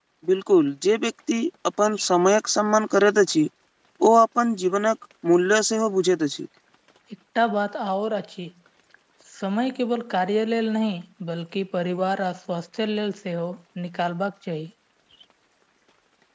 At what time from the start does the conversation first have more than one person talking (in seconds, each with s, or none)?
none